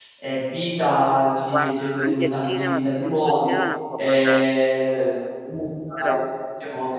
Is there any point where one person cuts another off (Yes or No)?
Yes